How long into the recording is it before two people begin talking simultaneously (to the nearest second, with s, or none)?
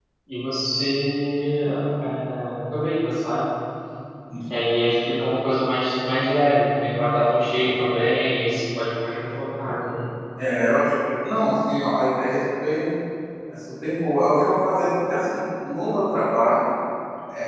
none